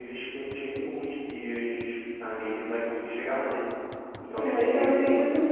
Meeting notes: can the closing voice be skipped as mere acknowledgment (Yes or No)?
No